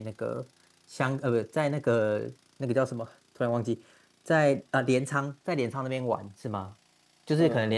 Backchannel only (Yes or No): Yes